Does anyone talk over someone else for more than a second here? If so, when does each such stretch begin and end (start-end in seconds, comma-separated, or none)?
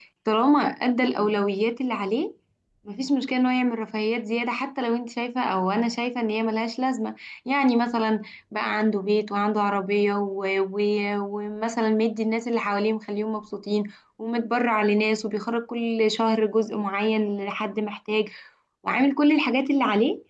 none